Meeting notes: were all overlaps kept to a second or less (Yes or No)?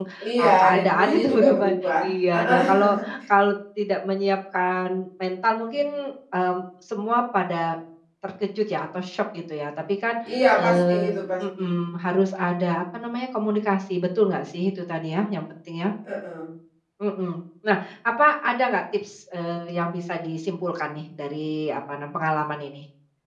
No